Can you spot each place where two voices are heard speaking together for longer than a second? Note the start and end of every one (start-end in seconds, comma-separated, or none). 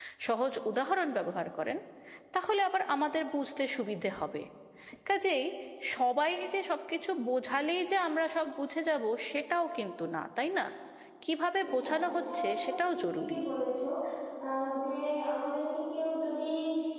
11.8-13.4